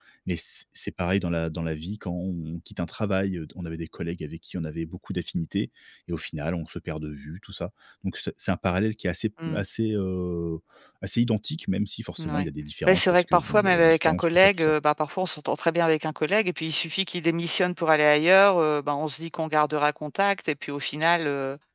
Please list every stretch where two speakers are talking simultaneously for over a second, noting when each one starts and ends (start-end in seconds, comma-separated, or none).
12.9-14.7